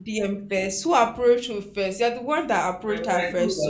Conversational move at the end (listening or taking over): taking over